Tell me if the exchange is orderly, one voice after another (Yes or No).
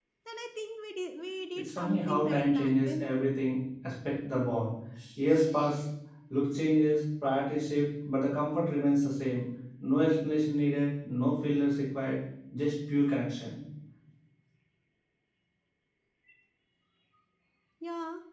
No